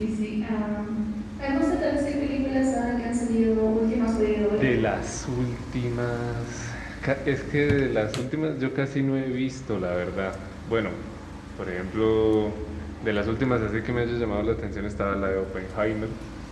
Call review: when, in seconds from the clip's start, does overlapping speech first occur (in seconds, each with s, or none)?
none